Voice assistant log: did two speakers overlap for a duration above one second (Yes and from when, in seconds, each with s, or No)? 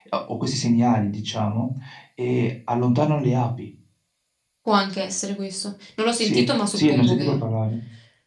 Yes, from 6.2 s